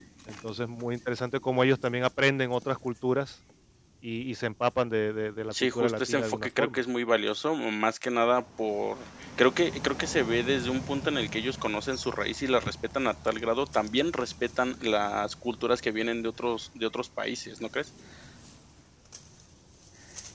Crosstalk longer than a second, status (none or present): present